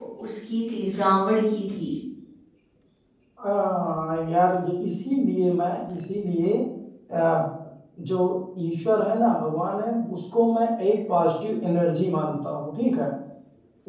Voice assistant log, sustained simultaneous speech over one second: none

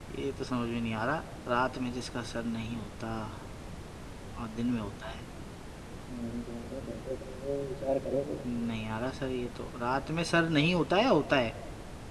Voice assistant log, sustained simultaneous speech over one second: none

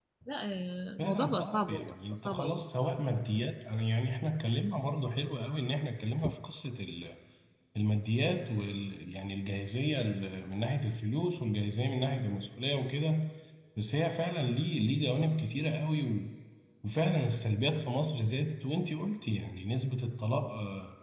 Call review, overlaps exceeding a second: present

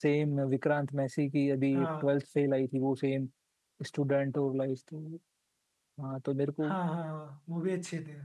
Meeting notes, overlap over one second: none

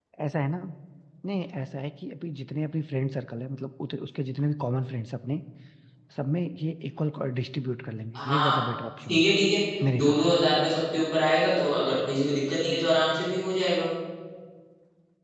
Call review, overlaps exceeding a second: none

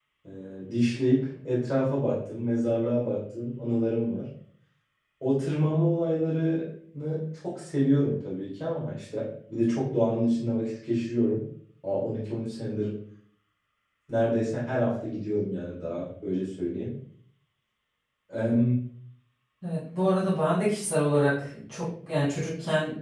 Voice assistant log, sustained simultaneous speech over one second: none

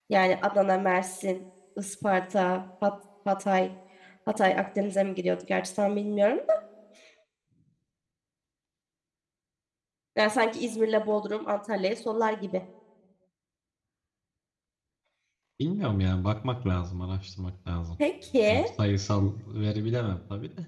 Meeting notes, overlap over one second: none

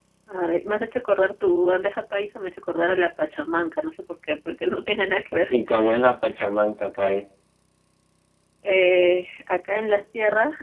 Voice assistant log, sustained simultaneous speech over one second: none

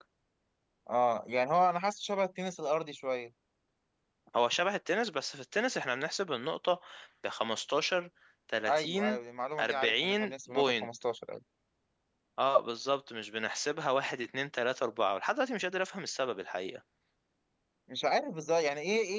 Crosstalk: present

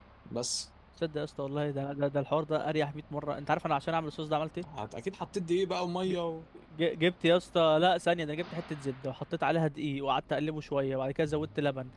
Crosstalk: none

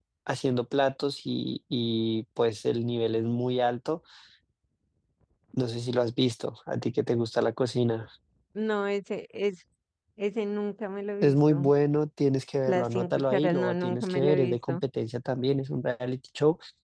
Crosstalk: present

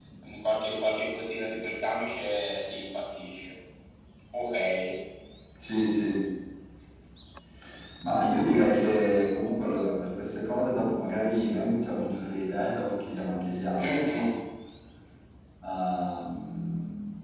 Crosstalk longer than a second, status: none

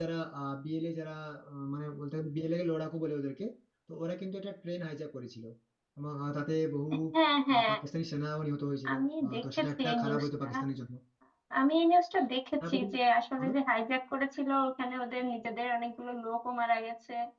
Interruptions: present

